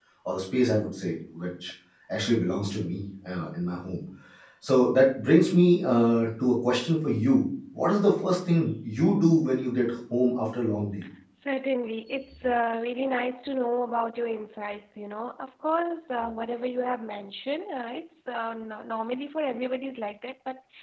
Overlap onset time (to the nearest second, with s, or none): none